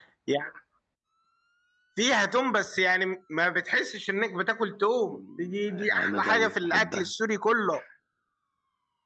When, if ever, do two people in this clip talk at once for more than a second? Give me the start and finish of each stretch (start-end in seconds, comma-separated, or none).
5.1-7.1